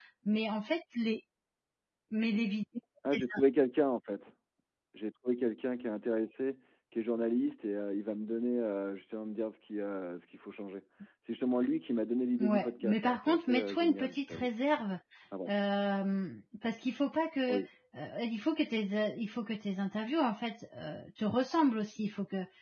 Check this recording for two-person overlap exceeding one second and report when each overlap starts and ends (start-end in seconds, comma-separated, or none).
12.4-14.5